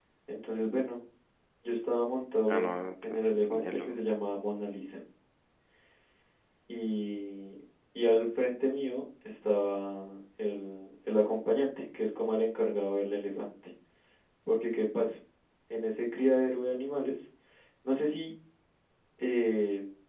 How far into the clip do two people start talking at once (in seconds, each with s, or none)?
2.5 s